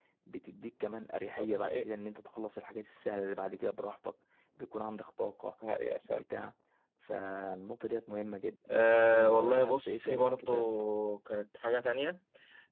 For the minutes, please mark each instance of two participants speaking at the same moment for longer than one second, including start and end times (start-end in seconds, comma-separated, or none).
8.7-10.7